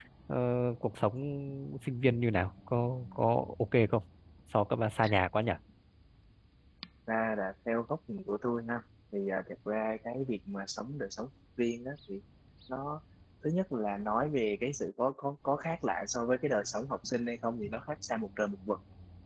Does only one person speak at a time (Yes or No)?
Yes